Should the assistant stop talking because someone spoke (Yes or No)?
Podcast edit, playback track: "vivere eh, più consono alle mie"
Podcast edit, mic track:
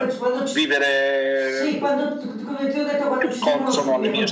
Yes